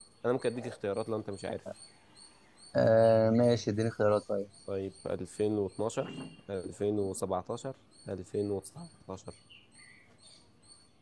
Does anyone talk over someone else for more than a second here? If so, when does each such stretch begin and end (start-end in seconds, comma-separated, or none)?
none